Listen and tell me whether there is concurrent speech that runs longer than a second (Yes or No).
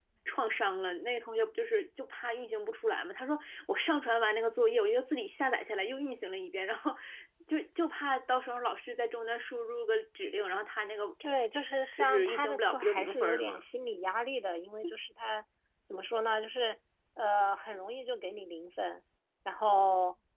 Yes